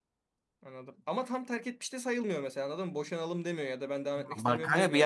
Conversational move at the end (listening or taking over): taking over